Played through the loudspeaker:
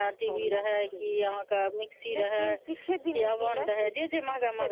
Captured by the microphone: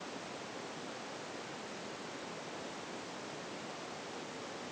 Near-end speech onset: none

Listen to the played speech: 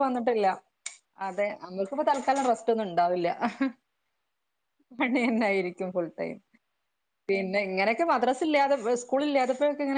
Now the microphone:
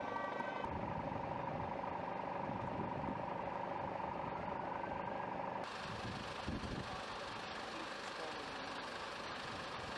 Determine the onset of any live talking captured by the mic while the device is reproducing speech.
none

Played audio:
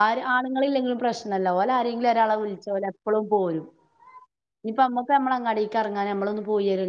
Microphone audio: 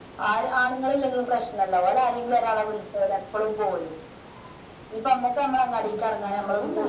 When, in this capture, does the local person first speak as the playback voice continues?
5.8 s

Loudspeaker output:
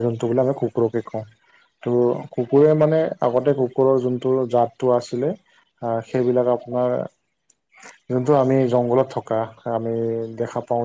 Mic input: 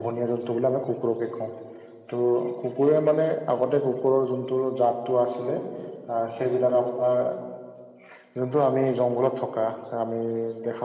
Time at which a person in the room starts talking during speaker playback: none

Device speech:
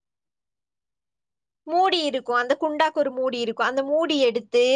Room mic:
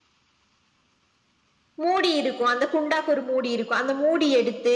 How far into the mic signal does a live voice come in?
none

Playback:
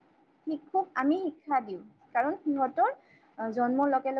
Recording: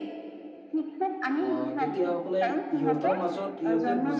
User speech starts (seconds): 1.5 s

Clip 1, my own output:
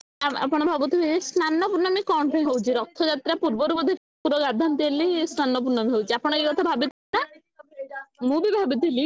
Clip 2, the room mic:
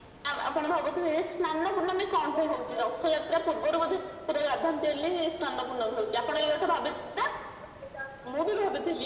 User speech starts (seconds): none

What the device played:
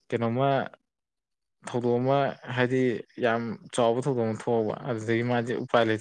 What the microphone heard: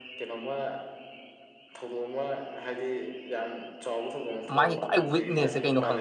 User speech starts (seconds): 4.6 s

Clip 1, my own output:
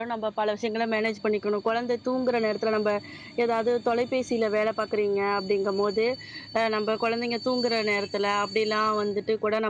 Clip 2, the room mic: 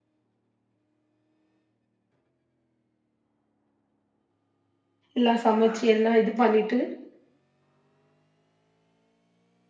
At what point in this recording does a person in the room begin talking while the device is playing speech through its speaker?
5.2 s

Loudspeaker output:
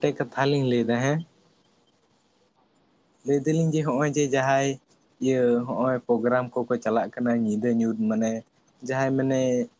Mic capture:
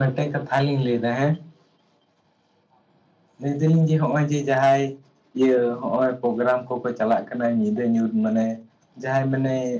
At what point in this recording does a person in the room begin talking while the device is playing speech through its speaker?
none

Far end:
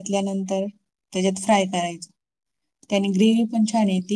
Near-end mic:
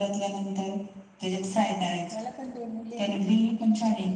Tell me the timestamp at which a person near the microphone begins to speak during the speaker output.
1.5 s

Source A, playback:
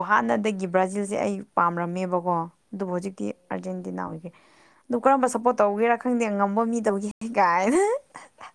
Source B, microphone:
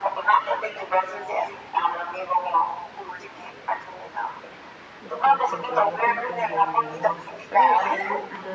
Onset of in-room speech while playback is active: 5.0 s

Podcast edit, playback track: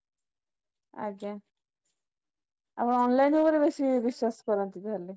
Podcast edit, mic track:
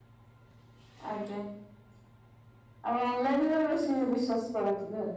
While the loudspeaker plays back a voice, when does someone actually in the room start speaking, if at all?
none

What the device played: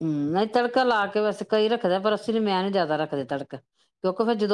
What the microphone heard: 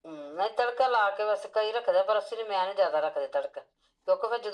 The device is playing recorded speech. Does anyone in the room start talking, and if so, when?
none

